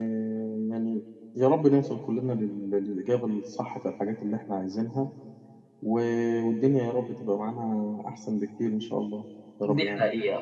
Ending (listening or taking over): taking over